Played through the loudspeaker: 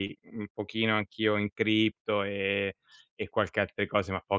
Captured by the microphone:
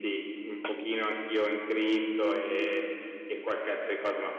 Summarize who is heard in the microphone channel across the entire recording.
echo only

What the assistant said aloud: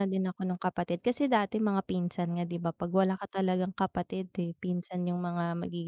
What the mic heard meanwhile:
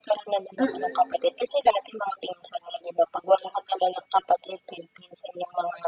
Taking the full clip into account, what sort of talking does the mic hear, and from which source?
both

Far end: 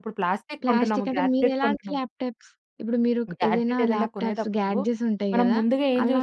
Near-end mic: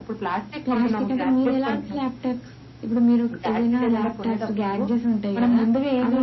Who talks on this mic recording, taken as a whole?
echo only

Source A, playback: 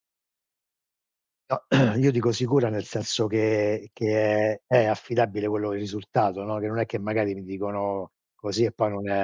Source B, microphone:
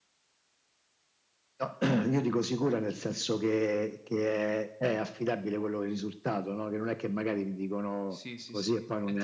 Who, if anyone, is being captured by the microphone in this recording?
both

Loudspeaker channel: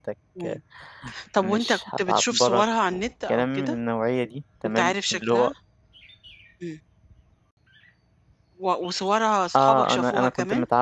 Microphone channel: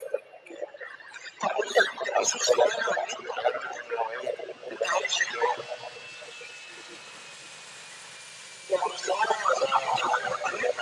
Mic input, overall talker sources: echo only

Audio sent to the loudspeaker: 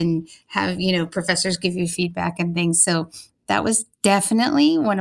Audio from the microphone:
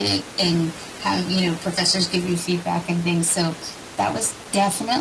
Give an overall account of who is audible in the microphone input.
echo only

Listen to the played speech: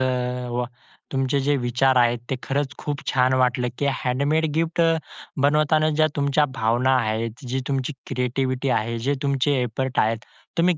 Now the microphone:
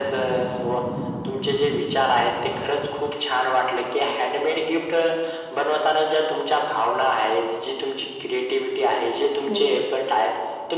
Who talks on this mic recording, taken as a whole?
both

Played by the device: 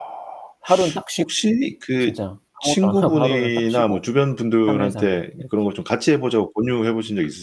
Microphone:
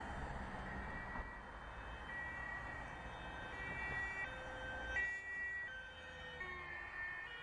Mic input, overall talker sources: neither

